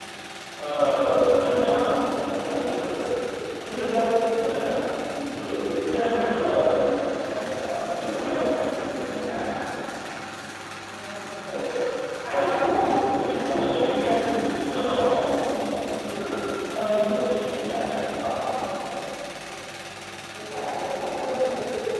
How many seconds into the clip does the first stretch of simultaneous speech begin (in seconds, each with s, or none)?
1.6 s